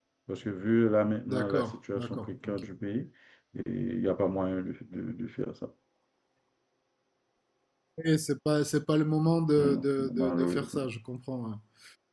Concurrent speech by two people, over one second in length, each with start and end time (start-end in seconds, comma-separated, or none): 1.3-2.6, 9.6-10.9